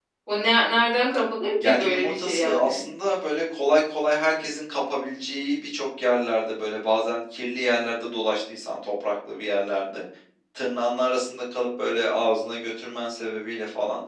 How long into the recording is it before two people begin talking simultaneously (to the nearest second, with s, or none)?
2 s